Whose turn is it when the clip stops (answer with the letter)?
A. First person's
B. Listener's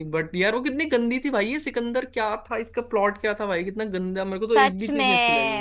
B